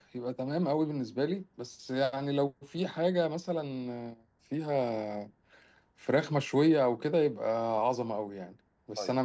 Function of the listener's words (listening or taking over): listening